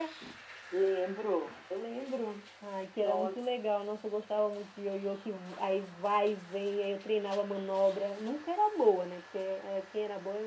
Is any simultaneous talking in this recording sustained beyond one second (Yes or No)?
No